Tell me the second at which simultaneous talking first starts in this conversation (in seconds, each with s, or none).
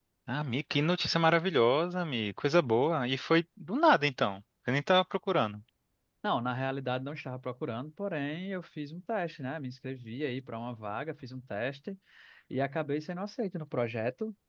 none